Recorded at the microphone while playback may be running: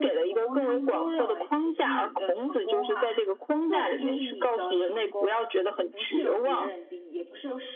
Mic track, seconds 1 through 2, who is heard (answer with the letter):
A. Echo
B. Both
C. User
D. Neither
B